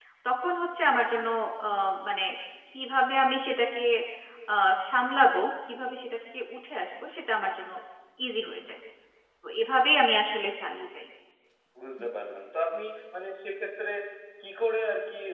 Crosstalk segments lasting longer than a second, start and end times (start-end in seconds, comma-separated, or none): none